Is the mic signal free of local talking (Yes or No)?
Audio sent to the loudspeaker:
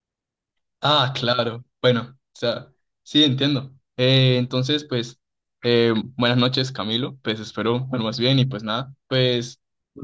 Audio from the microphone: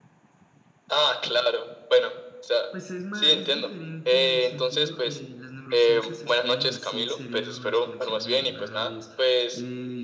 No